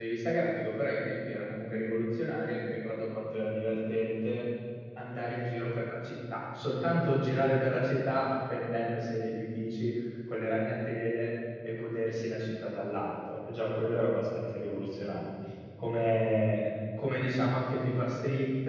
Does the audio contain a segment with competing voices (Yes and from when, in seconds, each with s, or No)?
No